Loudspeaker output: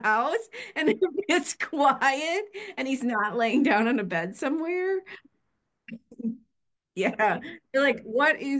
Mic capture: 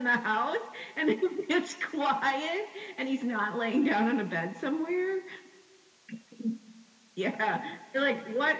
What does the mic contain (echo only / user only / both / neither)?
echo only